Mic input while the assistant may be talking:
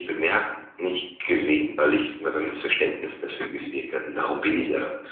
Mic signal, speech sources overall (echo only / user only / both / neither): both